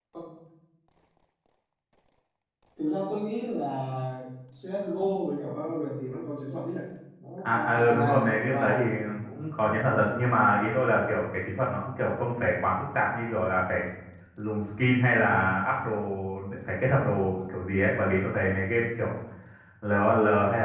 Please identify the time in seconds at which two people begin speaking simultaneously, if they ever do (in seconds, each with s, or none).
7.5 s